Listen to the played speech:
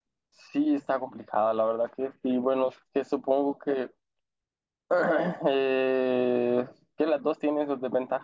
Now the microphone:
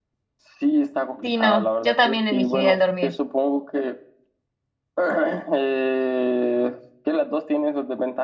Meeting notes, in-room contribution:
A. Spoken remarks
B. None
A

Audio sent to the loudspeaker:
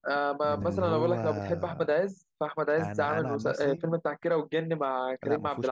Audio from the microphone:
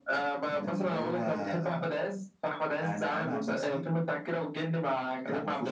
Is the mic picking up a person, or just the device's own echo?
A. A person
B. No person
B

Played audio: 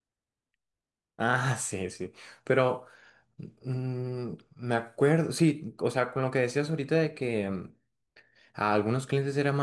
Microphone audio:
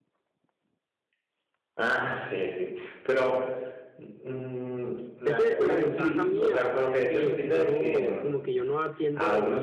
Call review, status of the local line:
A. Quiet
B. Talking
B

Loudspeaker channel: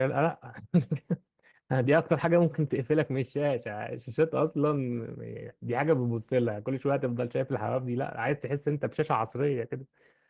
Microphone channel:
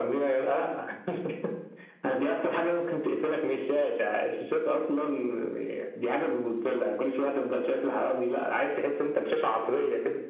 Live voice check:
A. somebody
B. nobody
B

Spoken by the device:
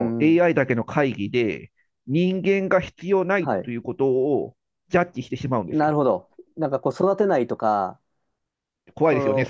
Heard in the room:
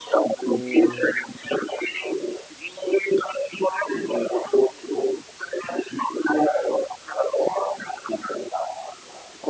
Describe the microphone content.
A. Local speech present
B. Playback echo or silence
A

